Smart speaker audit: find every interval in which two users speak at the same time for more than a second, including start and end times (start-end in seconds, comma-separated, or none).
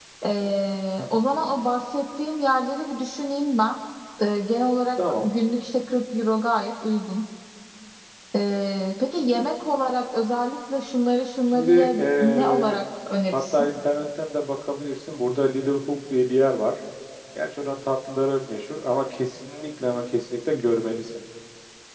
11.5-12.8